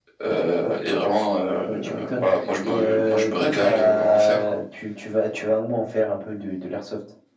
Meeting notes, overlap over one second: present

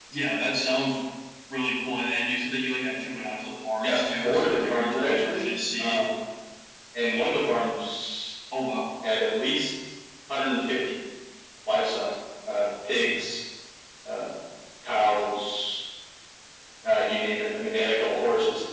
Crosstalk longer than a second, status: present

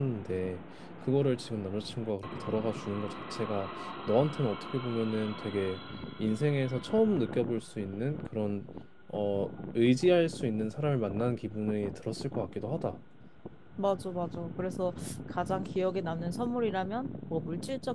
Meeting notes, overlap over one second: none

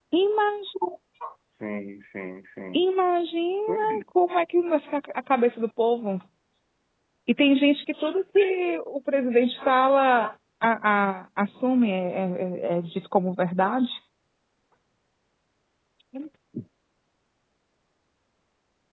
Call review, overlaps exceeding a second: none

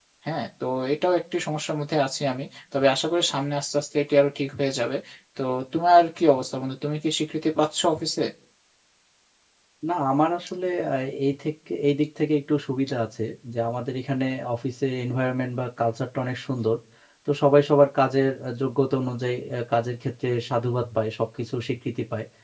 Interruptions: none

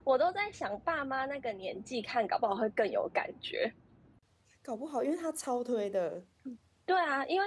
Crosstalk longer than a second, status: none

